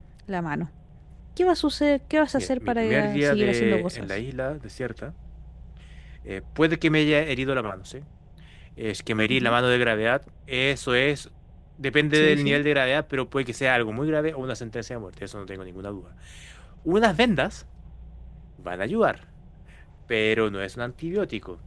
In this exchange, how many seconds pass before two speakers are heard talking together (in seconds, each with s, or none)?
2.4 s